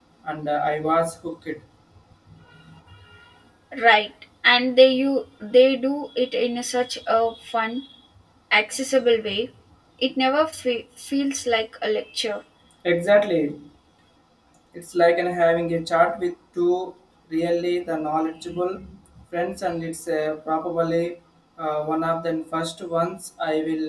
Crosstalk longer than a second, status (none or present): none